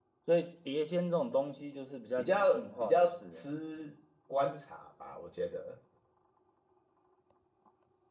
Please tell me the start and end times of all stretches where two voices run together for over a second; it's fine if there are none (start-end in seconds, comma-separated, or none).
2.2-3.5